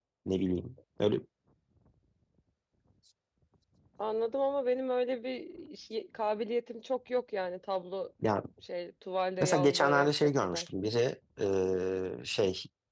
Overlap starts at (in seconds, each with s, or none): 9.4 s